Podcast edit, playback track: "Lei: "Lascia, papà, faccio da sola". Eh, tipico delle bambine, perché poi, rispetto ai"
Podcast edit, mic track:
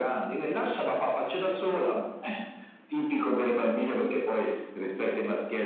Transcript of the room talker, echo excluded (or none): none